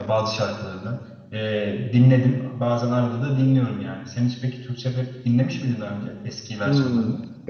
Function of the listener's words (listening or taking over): taking over